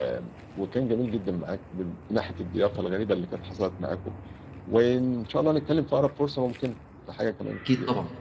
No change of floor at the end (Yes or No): No